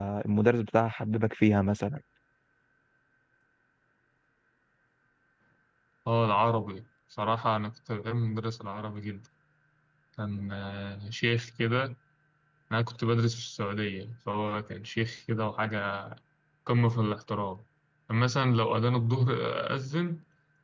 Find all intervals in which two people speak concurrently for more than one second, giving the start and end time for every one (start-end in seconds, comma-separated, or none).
none